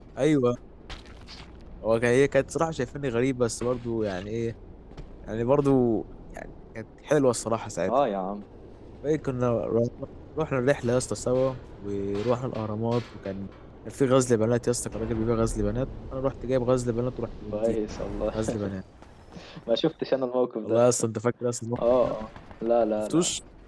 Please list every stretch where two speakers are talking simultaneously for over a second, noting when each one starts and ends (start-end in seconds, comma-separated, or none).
none